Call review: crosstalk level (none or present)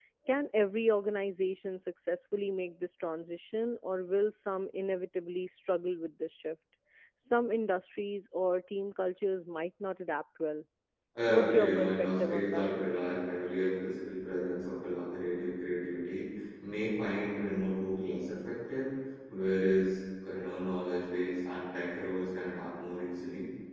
present